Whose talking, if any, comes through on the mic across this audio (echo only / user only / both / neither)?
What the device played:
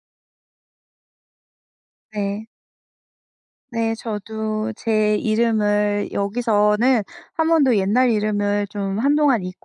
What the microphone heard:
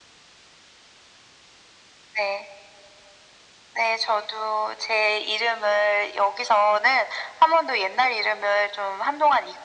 echo only